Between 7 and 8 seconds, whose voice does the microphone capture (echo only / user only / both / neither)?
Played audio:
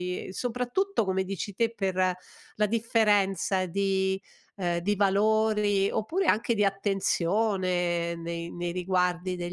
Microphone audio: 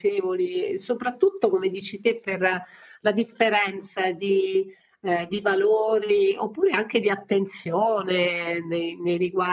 echo only